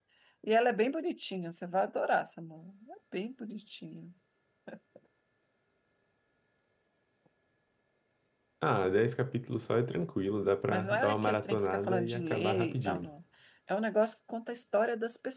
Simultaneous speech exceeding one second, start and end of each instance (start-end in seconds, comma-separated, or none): 10.7-13.1